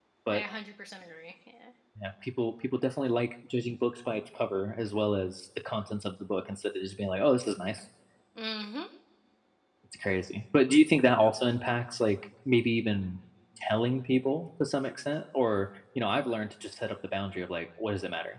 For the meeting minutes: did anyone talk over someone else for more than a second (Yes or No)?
No